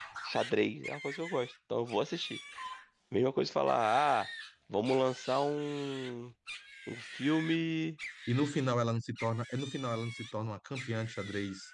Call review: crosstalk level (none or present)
none